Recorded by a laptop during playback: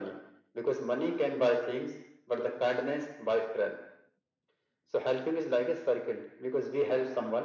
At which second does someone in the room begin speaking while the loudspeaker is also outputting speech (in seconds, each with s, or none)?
none